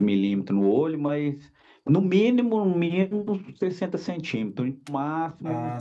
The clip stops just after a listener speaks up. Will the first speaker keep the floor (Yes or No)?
No